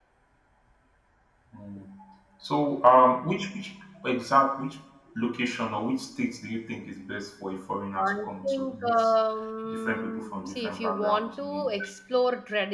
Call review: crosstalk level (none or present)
present